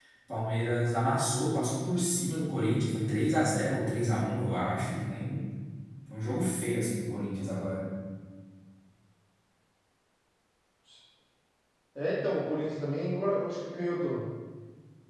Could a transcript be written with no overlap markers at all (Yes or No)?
Yes